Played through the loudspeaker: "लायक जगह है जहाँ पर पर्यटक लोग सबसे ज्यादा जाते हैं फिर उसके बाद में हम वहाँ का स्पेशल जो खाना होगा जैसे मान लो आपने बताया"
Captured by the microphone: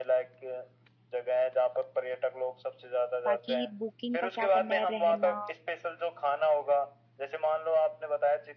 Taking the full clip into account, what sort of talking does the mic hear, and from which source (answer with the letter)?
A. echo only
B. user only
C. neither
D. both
D